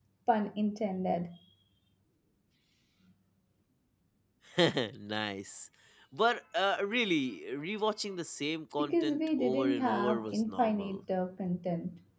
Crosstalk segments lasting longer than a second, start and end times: 8.8-11.0

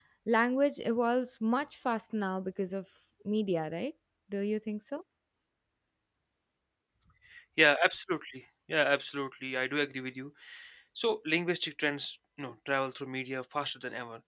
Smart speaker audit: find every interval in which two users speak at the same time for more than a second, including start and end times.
none

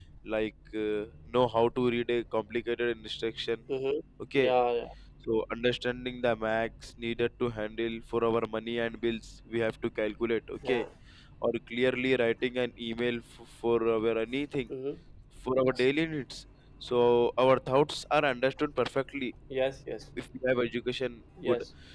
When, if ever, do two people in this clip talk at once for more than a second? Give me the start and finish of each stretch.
none

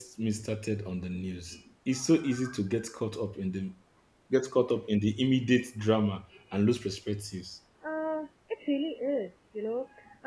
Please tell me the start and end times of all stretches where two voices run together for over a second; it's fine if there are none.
none

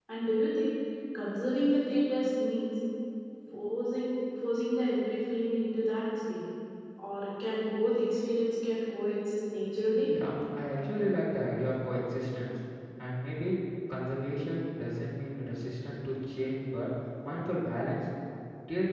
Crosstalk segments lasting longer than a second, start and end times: none

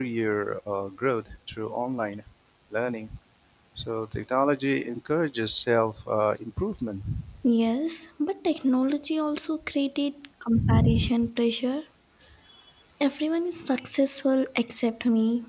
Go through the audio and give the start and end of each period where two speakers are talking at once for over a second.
none

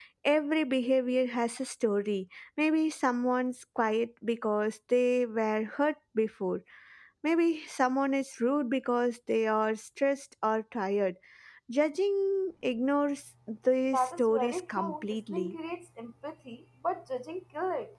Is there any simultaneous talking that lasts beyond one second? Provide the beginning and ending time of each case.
13.9-15.6

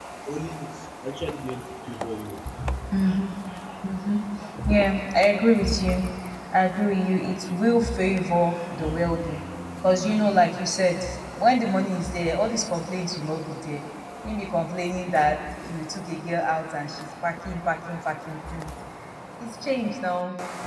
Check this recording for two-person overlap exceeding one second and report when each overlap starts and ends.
none

